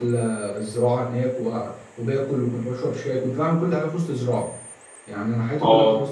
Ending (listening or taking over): listening